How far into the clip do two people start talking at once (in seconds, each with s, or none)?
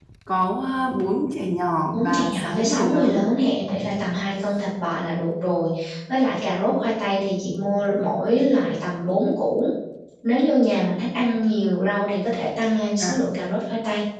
1.8 s